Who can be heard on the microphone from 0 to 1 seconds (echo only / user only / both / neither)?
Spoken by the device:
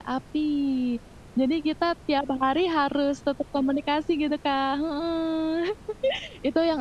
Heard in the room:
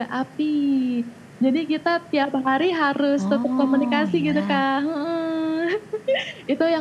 echo only